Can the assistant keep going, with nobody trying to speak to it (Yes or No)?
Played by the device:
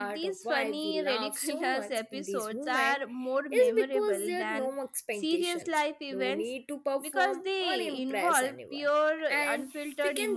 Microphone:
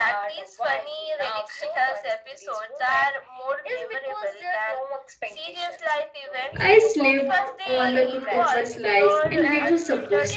No